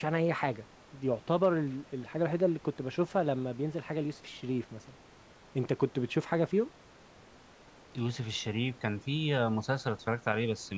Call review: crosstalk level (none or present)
none